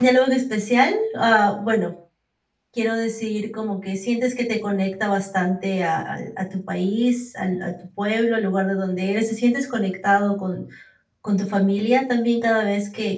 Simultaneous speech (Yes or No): No